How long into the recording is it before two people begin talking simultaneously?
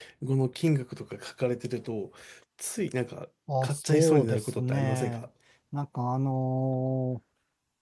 3.5 s

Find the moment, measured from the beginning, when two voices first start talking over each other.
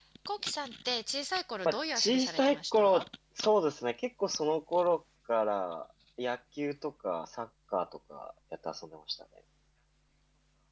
1.6 s

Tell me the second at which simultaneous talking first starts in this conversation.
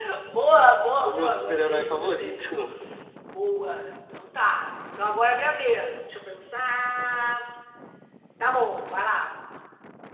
1.0 s

